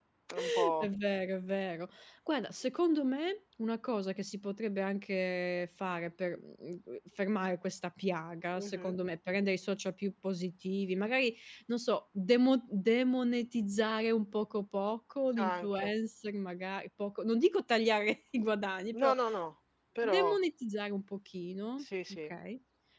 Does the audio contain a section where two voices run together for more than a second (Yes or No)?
No